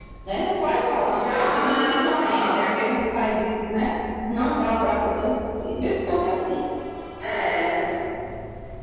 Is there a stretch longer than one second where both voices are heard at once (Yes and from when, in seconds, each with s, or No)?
Yes, from 1.0 s